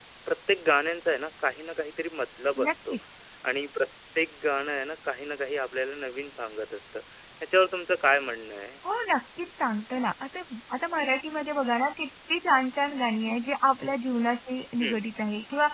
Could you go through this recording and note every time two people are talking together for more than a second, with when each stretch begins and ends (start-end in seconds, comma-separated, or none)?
none